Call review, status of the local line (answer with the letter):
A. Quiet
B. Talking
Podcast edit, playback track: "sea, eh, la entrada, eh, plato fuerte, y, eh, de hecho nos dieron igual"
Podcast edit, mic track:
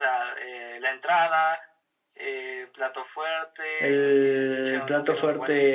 B